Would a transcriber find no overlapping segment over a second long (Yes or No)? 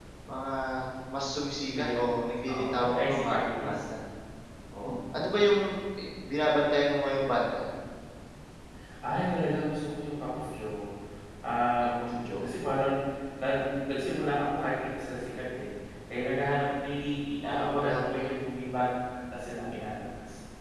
No